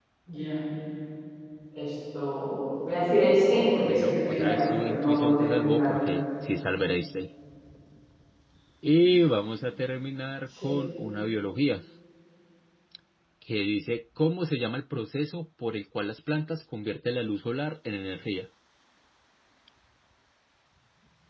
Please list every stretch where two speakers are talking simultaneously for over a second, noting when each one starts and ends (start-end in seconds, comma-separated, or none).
3.8-6.0